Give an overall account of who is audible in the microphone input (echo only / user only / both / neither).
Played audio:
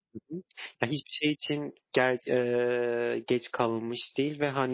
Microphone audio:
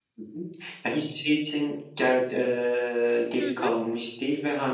both